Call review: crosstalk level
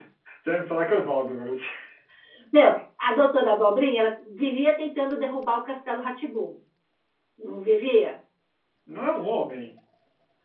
none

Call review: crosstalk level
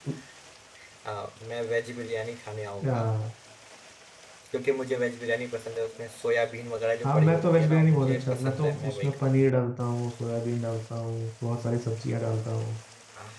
present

